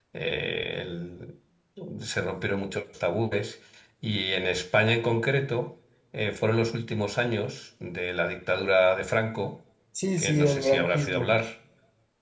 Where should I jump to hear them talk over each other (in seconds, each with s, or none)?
10.2 s